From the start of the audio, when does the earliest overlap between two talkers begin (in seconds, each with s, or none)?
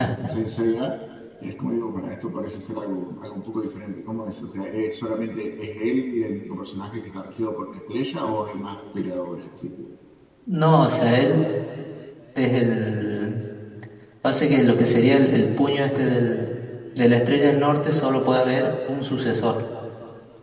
none